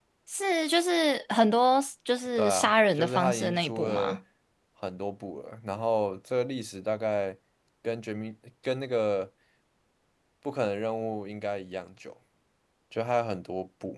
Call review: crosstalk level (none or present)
present